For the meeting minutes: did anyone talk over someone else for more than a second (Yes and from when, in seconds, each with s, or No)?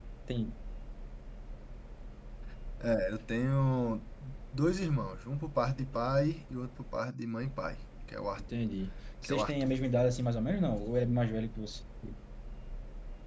No